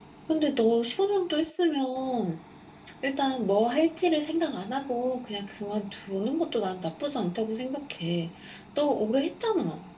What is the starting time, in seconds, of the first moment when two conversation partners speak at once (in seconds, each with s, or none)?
none